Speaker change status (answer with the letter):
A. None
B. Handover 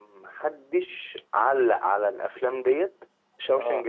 A